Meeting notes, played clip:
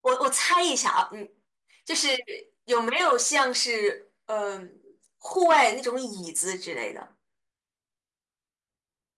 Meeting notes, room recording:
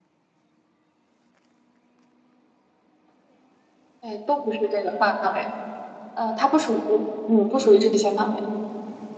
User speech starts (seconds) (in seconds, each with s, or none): 4.0 s